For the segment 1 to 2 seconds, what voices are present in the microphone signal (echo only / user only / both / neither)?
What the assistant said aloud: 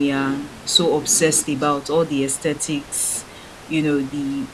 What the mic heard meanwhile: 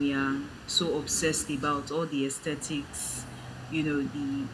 echo only